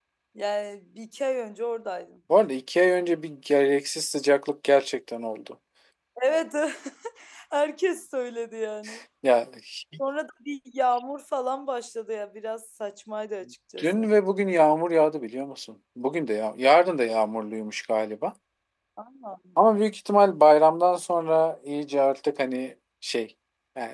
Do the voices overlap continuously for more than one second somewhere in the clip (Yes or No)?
No